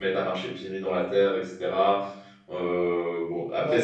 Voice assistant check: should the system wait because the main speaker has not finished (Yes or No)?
Yes